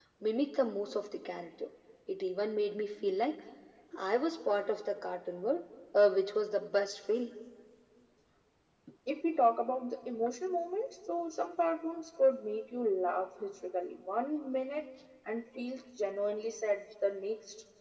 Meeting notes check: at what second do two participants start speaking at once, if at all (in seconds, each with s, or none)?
none